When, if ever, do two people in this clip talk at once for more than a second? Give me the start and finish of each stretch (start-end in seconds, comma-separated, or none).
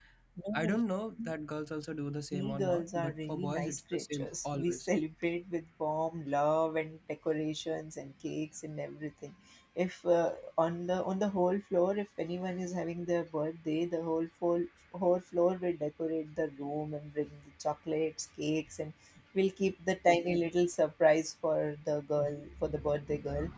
2.3-4.9